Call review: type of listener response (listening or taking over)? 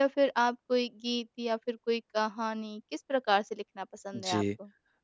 taking over